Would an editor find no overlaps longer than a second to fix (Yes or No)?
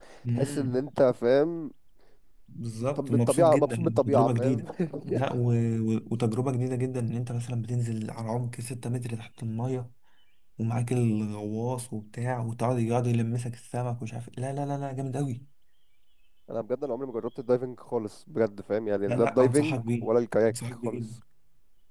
No